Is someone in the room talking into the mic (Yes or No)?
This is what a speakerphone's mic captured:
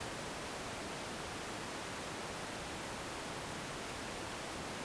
No